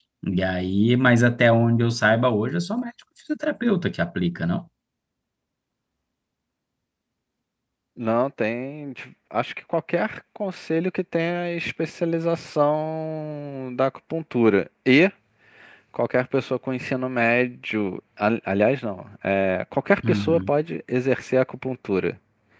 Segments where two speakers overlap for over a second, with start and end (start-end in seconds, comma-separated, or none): none